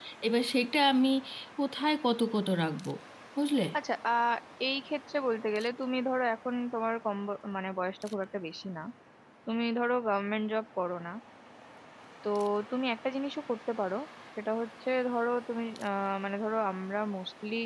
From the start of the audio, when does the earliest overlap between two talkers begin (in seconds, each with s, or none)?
none